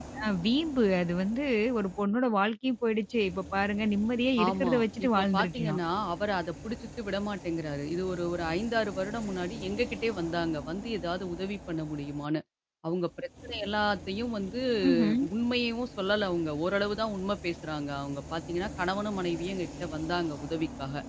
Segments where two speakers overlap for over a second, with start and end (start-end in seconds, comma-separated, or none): 4.5-5.8